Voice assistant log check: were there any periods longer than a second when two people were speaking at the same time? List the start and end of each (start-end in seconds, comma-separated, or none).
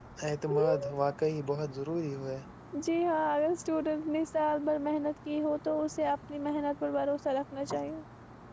none